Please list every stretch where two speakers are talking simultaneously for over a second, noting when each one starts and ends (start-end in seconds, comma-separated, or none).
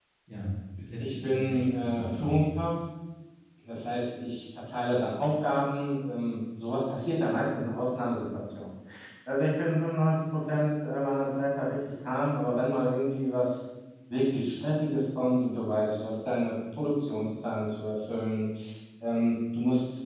1.0-2.5